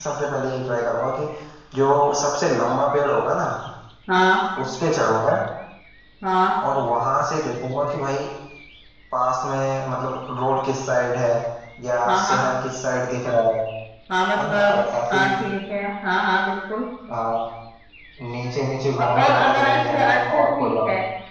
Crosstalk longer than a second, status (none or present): present